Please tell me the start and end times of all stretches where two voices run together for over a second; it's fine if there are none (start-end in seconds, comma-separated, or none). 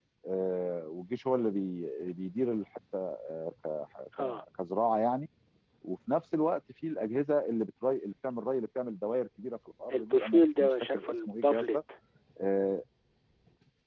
9.9-11.8